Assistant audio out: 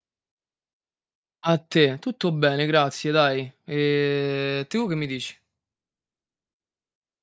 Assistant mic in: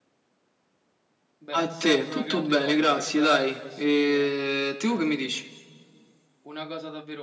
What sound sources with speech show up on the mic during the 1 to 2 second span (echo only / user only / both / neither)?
both